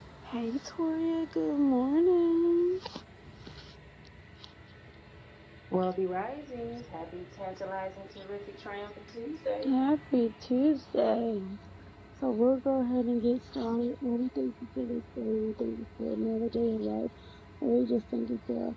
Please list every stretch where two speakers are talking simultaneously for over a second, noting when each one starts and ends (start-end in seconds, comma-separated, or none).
none